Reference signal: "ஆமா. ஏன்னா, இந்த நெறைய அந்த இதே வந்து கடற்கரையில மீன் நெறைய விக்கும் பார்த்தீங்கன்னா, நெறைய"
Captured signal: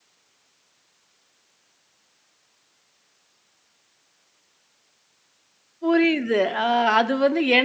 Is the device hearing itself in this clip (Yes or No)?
No